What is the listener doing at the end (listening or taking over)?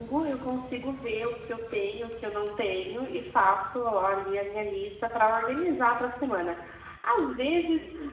listening